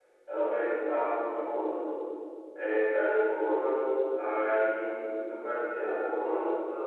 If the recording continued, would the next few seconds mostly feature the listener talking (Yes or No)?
No